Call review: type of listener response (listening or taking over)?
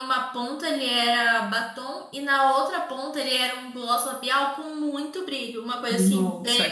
taking over